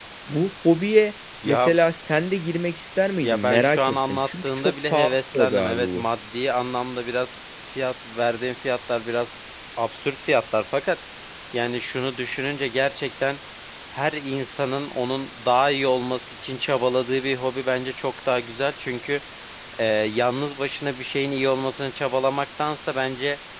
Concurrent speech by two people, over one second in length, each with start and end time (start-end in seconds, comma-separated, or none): 3.2-6.1